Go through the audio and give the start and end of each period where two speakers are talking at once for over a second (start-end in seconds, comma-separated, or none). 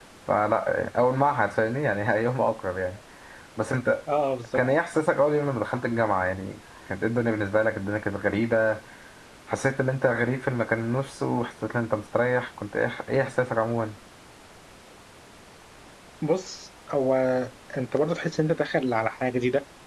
none